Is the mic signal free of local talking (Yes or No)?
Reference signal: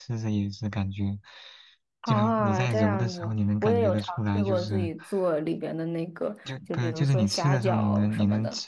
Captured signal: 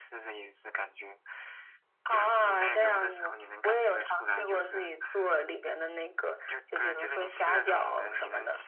Yes